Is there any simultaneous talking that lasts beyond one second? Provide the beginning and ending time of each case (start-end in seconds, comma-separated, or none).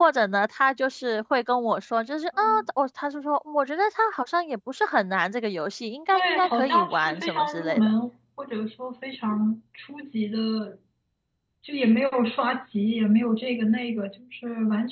6.1-7.9